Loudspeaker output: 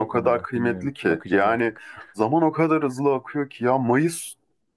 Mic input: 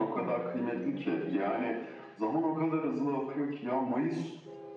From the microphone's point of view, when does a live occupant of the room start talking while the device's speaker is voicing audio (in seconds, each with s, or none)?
none